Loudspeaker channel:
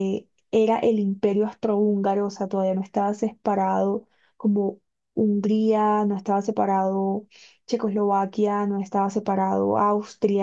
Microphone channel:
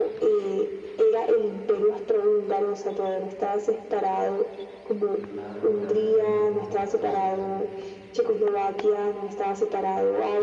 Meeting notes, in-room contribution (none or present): present